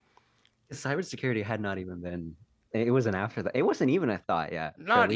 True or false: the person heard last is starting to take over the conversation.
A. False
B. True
B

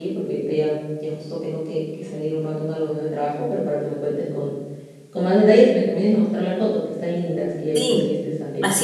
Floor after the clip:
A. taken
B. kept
A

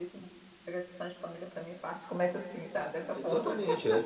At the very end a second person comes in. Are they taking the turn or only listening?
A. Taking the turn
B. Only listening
A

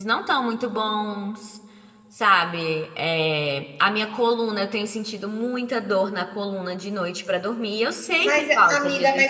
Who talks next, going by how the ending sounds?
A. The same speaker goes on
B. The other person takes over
B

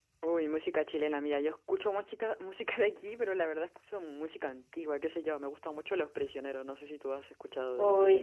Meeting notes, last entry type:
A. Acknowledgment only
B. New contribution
B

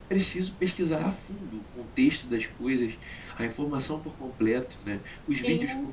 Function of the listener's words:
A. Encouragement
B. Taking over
A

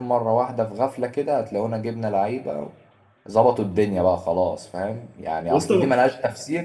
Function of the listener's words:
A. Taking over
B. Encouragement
B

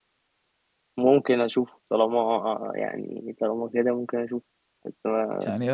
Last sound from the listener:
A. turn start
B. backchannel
A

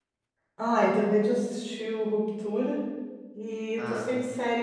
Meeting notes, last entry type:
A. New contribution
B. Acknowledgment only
B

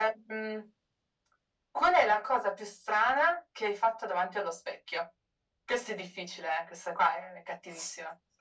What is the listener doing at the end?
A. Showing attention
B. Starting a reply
B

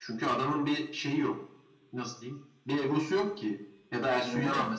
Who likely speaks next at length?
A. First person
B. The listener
A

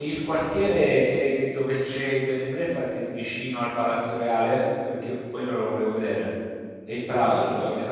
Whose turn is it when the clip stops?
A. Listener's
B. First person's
B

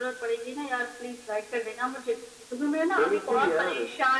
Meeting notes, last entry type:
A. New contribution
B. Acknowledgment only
B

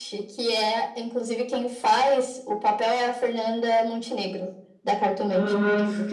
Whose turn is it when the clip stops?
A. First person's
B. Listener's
B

